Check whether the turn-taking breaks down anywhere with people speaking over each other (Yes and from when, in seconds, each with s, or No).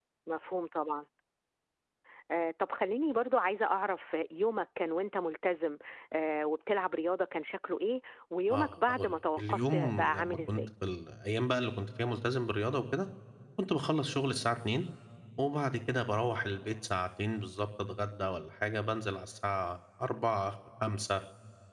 Yes, from 8.5 s